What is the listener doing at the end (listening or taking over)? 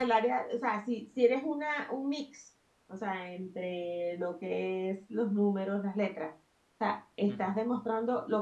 listening